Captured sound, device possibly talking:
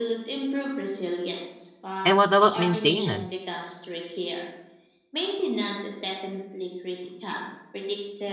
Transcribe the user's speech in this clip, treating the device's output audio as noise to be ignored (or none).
And what about maintenance?